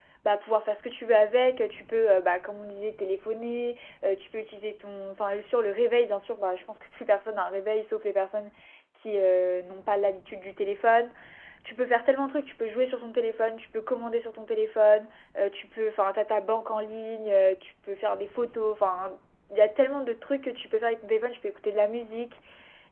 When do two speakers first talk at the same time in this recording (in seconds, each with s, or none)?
none